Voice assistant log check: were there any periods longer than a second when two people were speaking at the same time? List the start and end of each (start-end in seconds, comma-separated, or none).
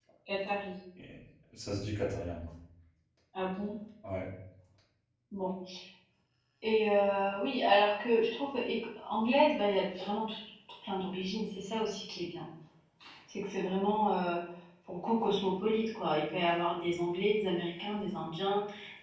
none